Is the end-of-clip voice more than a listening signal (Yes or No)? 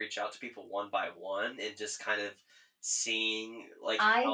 Yes